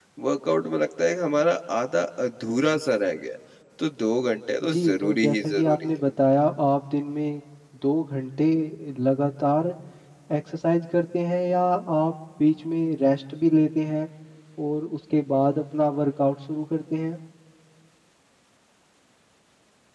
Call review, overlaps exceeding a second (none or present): present